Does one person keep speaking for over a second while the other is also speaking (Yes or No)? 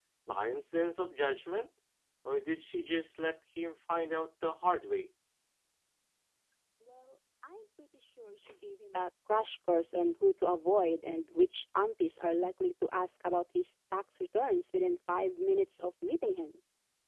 No